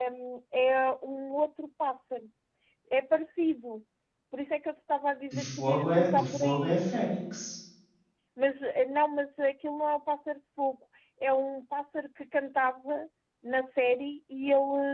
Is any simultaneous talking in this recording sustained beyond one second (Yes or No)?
Yes